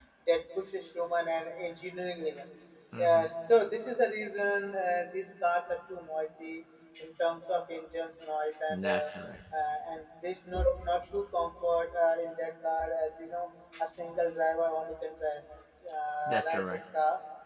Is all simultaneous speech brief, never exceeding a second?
Yes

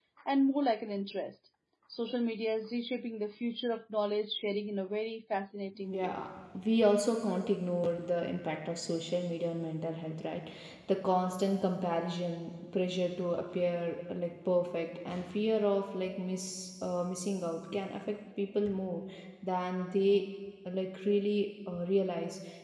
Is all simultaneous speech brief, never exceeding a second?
Yes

